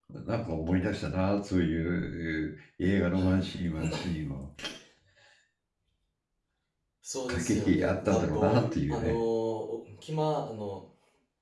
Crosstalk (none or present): present